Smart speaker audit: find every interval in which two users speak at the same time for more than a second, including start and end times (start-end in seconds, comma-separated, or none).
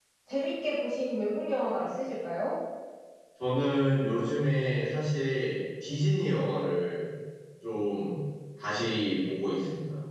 none